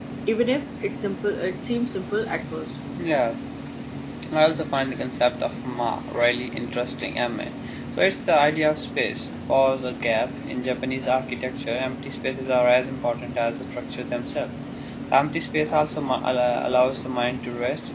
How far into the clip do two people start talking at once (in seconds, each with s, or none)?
none